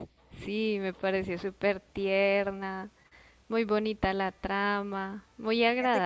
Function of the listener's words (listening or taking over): taking over